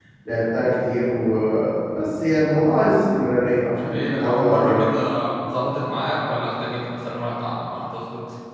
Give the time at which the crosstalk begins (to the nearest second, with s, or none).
4 s